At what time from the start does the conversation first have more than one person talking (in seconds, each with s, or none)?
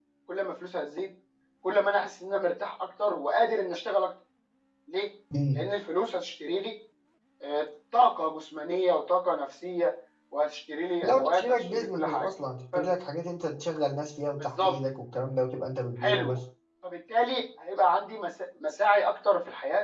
11.0 s